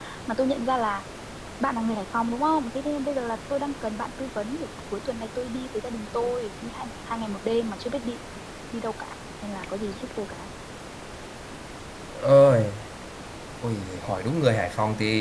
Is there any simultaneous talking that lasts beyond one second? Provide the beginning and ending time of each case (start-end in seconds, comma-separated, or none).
none